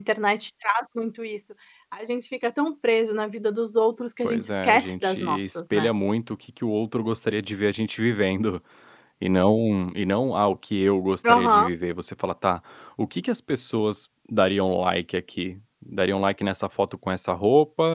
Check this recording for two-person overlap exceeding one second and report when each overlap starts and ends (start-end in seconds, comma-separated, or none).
4.2-5.9